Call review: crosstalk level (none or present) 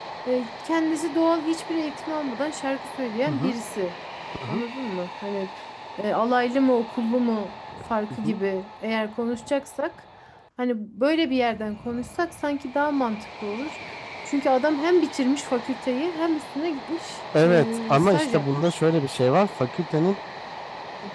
present